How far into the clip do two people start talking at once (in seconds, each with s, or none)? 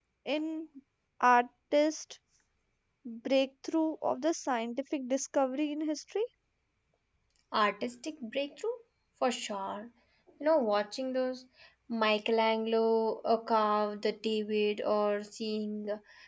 none